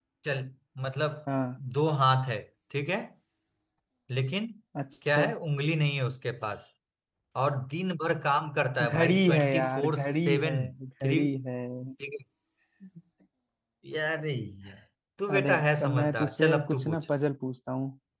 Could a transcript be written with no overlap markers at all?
No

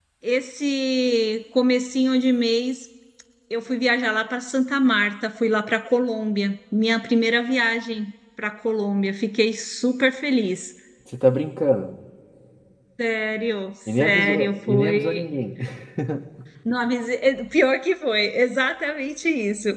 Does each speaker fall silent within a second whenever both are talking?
No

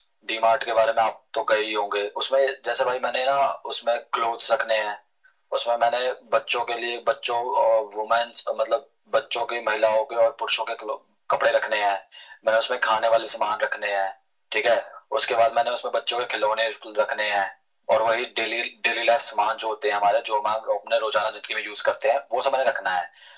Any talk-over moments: No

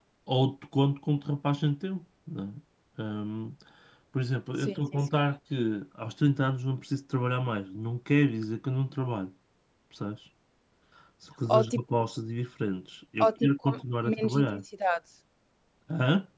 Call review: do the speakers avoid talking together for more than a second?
No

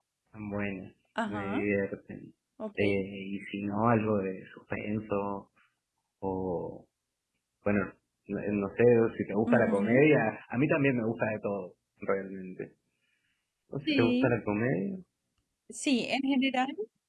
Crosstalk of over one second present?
No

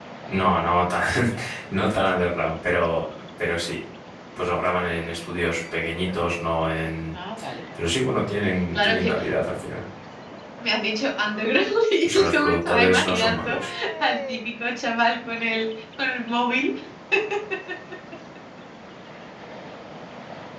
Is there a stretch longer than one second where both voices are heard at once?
Yes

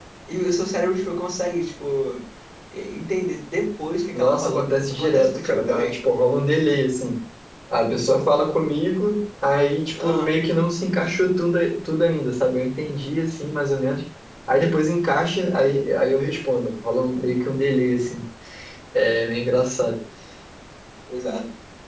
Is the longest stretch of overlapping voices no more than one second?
No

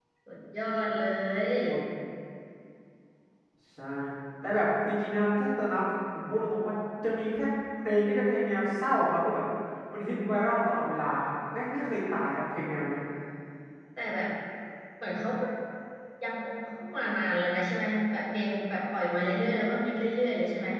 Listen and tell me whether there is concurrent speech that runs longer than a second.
No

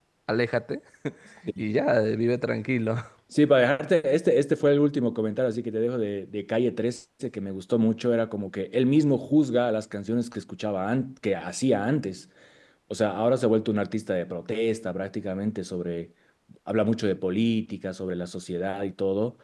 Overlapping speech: No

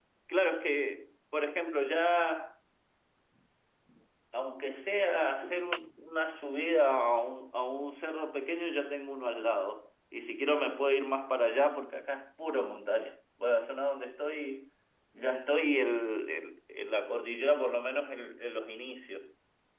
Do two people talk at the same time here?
No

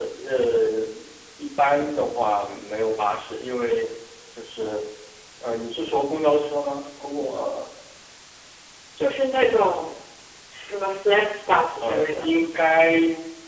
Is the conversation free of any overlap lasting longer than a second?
Yes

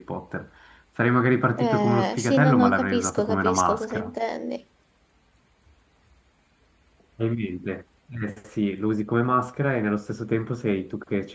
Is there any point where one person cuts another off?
Yes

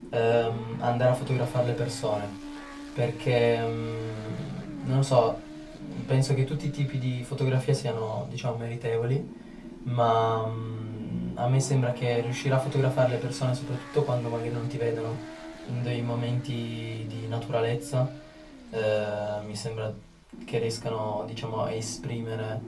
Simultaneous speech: No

